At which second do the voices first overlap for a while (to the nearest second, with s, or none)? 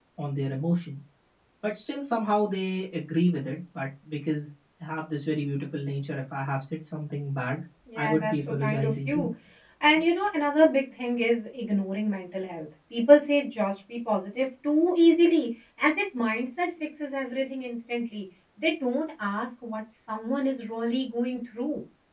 8 s